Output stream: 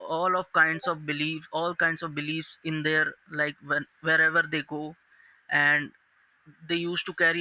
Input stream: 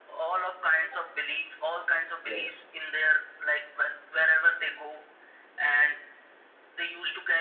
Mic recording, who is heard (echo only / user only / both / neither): both